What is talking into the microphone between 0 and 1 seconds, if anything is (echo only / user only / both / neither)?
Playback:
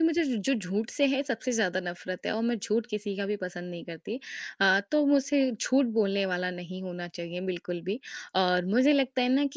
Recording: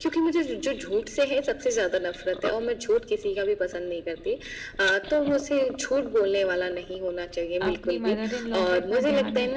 echo only